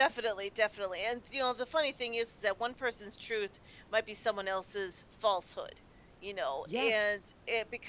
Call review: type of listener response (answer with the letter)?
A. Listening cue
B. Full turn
A